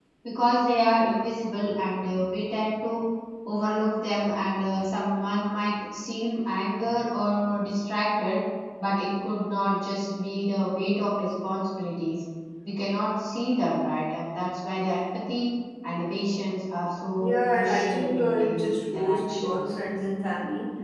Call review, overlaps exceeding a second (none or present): present